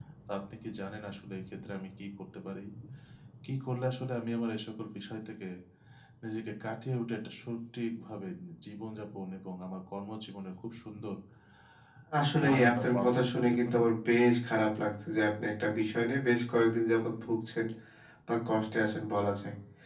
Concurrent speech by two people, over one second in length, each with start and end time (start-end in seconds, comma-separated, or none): 12.4-13.8